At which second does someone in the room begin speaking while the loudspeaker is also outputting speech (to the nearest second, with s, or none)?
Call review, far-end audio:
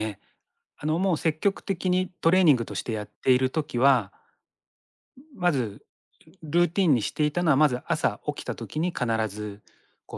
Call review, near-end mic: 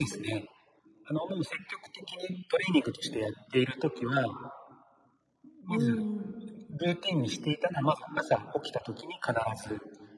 6 s